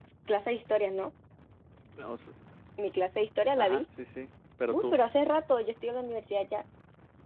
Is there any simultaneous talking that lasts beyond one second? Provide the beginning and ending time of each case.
none

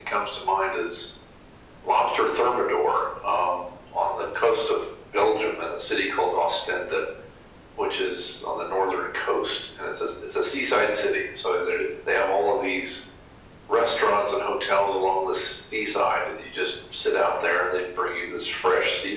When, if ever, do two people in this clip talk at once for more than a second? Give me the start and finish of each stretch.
none

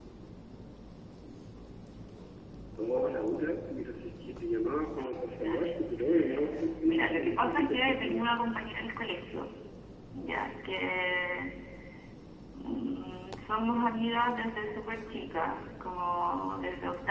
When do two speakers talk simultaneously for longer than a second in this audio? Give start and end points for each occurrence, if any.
6.8-8.2

